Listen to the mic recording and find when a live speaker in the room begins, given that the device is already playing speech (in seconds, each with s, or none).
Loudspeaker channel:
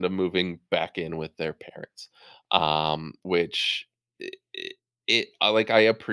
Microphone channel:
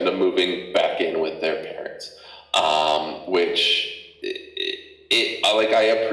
none